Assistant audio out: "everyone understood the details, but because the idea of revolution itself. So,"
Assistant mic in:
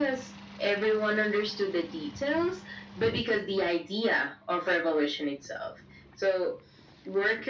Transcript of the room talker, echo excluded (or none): none